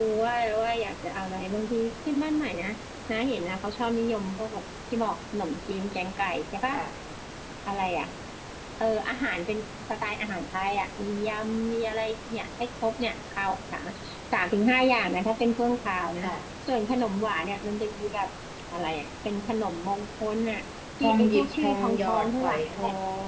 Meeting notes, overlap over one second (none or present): present